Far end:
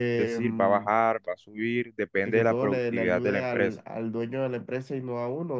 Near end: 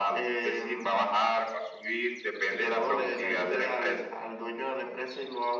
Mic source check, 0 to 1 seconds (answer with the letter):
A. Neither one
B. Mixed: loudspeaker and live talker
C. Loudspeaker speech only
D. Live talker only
C